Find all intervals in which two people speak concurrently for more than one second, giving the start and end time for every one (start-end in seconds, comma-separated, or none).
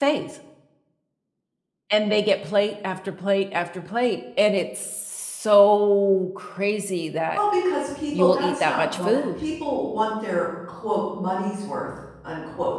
8.1-9.4